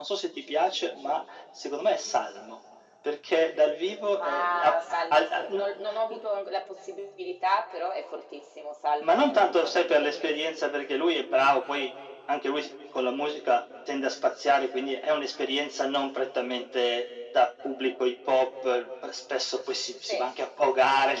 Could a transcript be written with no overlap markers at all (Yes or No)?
No